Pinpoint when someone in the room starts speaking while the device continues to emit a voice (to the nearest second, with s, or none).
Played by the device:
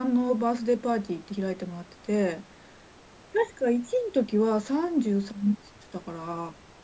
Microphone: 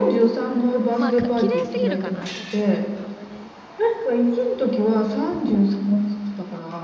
0 s